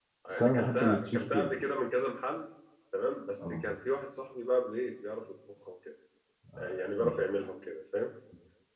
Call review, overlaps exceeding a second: present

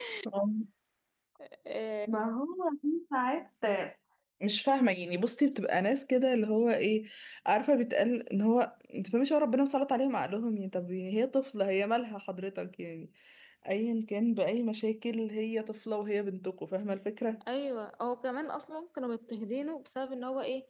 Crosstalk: none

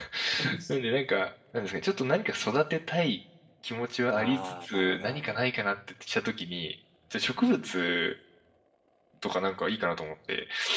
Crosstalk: present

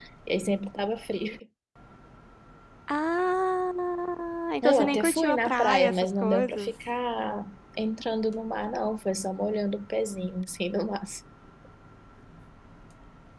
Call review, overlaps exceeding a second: present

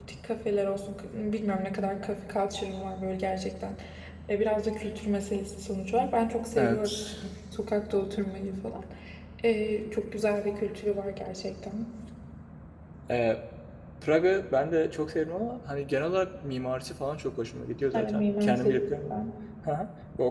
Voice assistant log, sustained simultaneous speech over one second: present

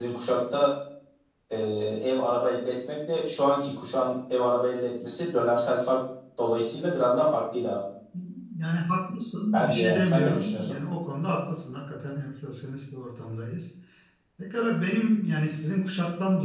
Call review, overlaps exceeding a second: present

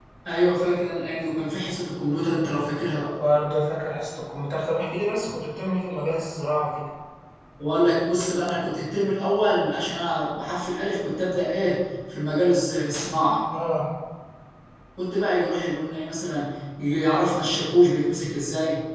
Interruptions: none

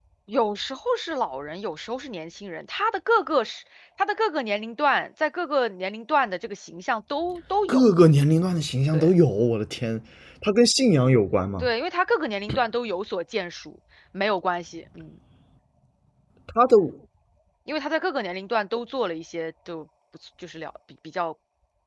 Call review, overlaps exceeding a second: none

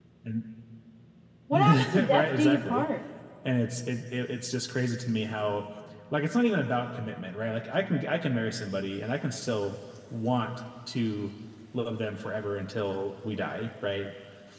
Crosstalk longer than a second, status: present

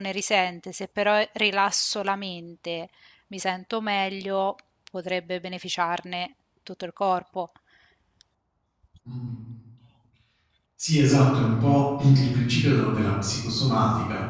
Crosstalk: none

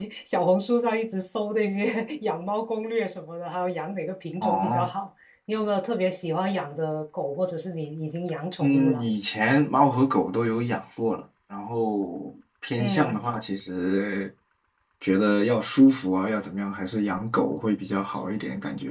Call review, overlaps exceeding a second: none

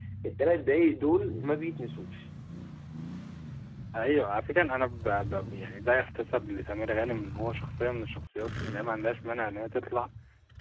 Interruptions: none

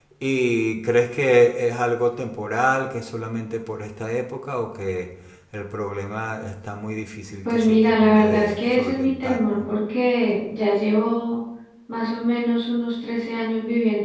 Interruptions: present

